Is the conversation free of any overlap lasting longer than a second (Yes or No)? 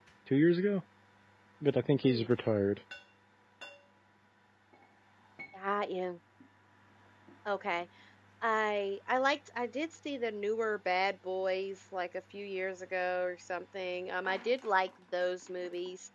Yes